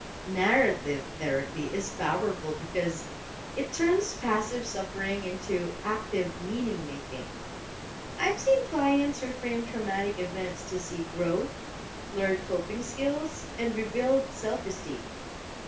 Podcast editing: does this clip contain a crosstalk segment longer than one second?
No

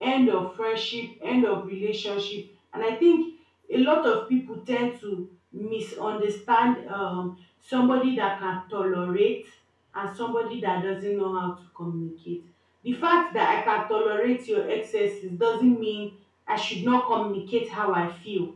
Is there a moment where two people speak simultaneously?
No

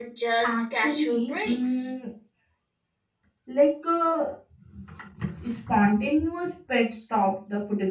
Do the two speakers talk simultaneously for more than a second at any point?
Yes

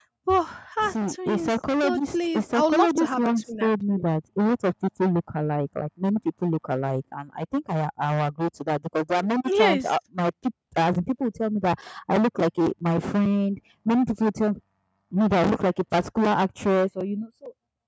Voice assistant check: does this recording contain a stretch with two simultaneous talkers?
Yes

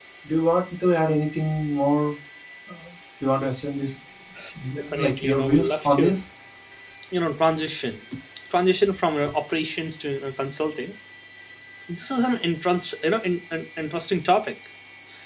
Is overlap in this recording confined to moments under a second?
No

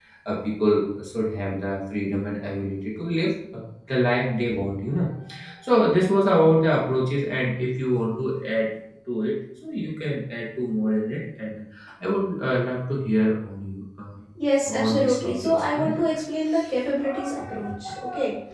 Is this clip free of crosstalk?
No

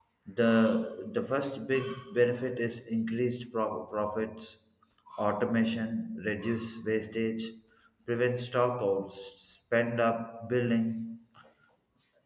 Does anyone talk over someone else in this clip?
No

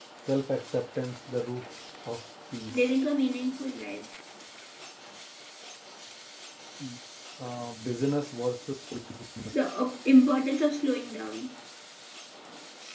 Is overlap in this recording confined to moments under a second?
Yes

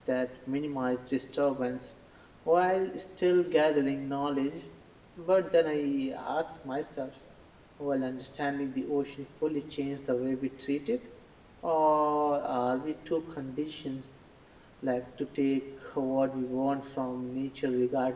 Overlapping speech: No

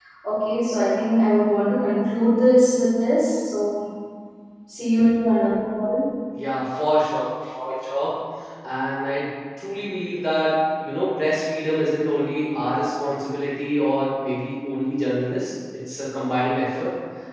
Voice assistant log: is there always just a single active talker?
Yes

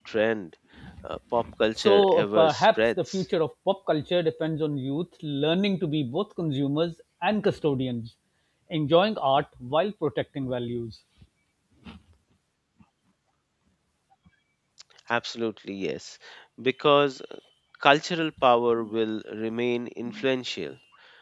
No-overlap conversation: No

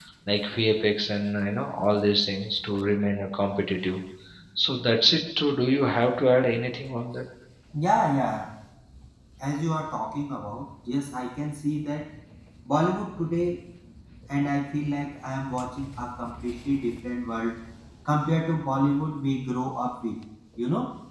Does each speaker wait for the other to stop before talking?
Yes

